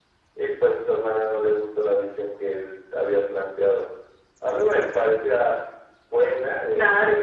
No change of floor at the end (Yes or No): Yes